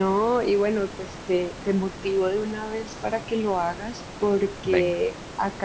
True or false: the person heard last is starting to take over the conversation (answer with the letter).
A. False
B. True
A